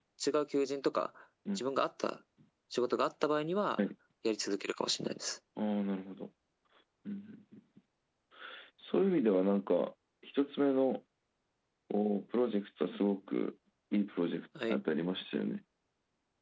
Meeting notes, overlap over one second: none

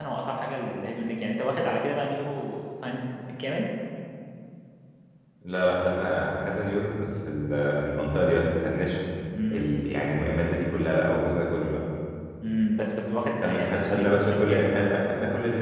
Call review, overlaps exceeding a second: present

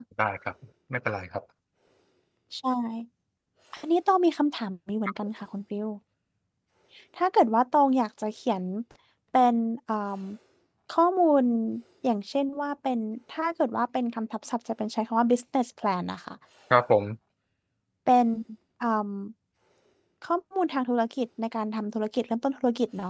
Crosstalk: none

